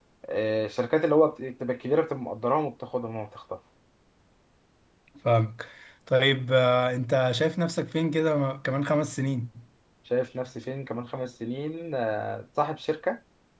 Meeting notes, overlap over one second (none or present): none